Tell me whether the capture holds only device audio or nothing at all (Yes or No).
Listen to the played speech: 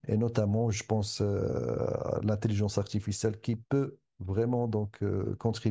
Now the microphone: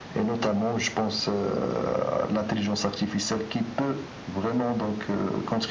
Yes